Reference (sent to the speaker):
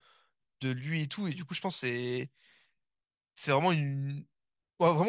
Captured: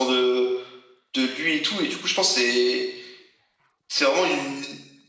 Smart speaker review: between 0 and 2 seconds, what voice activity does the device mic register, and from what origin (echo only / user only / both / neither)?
echo only